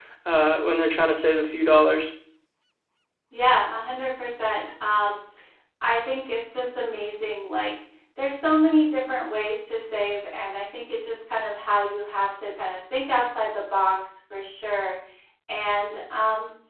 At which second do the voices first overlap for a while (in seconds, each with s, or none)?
none